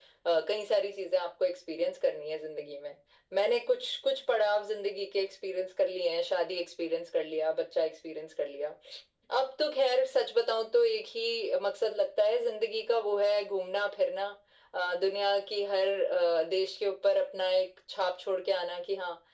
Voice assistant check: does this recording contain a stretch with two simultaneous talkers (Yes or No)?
No